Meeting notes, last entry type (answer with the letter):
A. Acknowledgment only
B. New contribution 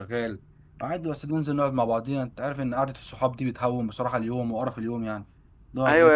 B